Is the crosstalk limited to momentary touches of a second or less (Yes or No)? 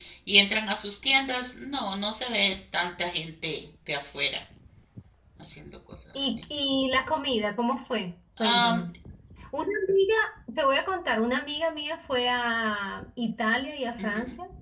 Yes